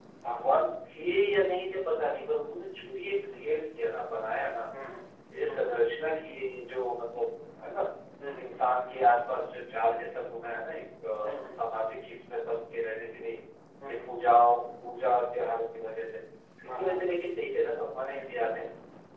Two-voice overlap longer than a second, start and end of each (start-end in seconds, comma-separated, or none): none